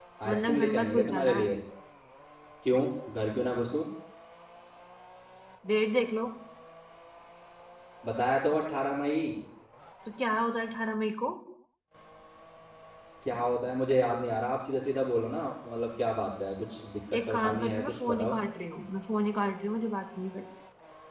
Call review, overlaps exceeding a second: present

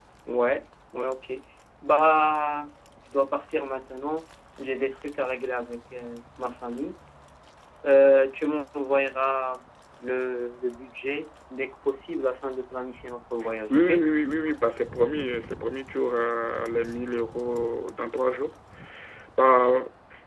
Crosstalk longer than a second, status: none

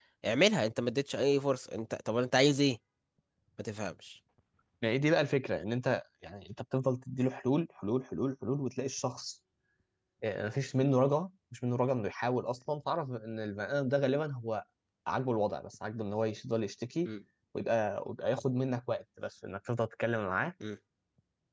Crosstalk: none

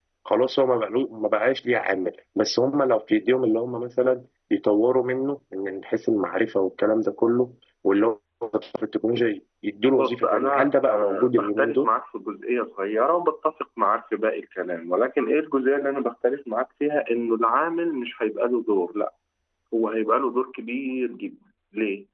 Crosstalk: present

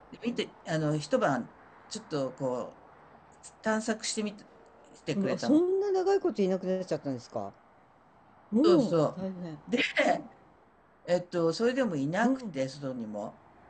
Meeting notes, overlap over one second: none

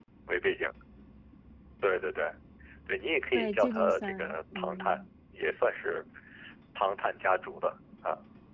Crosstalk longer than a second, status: present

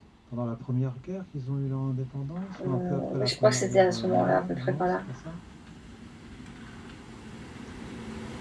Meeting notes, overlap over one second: present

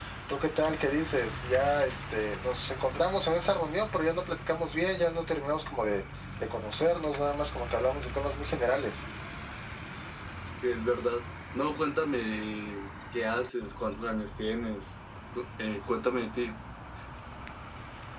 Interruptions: none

